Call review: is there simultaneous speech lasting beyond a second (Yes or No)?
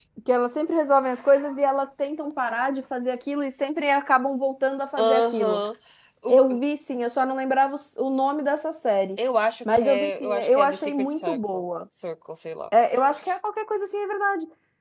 Yes